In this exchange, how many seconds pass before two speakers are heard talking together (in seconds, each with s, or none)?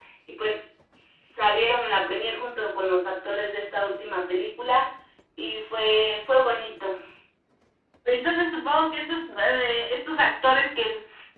none